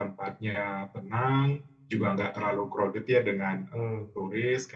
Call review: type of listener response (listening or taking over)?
listening